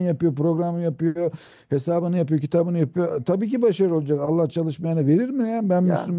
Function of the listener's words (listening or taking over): listening